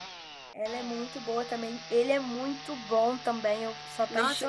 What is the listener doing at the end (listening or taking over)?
taking over